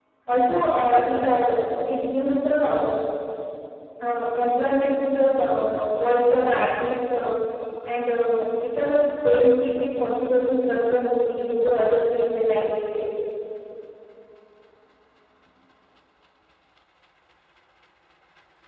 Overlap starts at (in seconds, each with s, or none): none